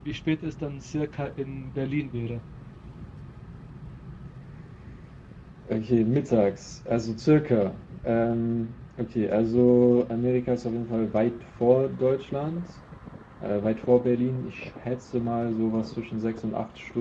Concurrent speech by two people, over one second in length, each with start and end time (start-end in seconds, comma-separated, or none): none